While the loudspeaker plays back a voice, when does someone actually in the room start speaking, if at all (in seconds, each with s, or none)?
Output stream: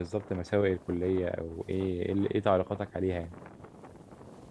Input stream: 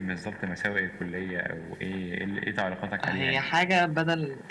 3.0 s